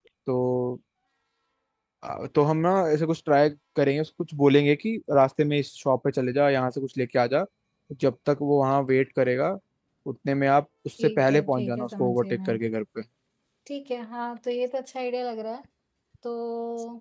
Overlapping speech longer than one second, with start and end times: 11.0-12.6

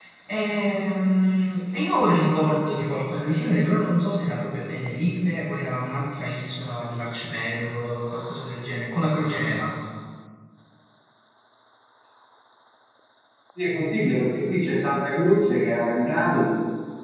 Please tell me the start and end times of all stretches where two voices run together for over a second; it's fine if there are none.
none

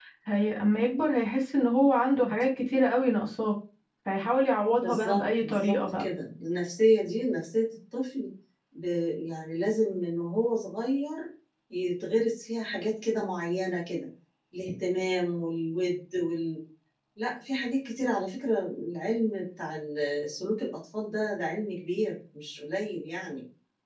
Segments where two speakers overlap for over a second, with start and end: 4.8-6.1

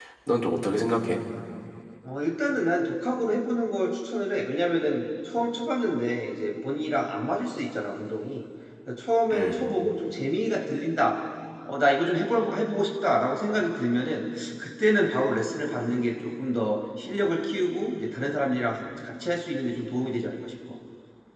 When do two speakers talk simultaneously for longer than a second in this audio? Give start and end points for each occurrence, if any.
none

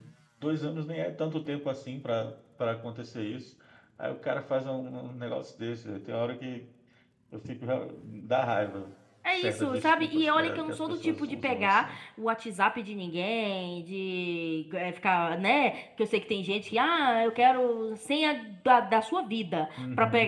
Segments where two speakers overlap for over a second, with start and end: 9.3-12.0

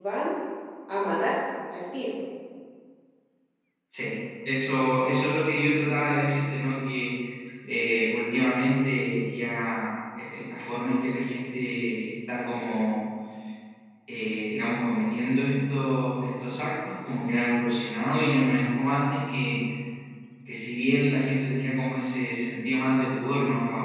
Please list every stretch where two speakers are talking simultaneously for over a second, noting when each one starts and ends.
none

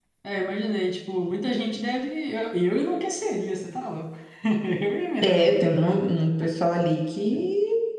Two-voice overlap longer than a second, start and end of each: none

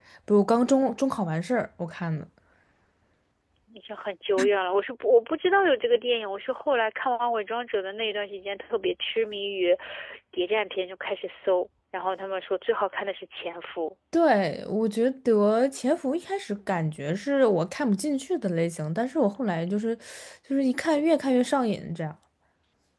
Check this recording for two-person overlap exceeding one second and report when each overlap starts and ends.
none

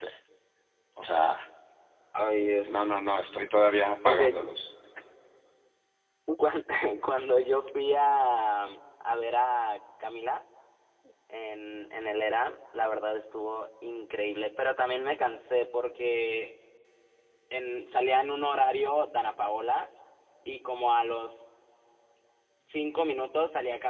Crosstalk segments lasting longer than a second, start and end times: none

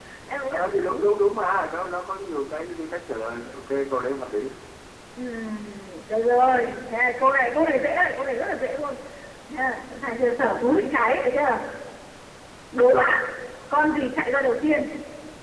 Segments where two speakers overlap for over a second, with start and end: none

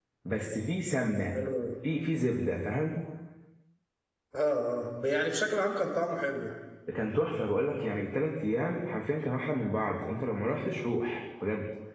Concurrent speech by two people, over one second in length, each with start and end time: none

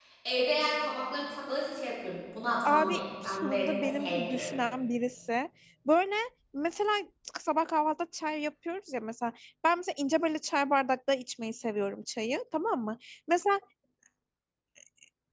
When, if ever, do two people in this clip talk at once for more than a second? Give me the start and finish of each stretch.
2.6-4.6

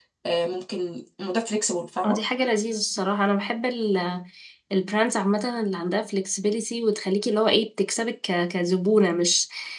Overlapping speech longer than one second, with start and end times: none

